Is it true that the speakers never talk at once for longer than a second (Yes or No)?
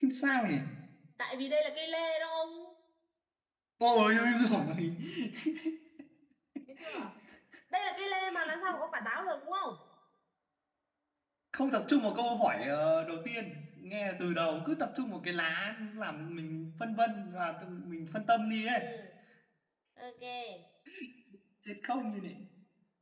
Yes